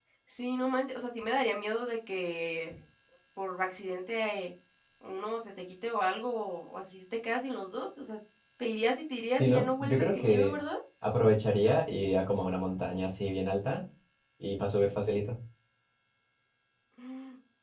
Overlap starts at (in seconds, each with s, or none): 9.2 s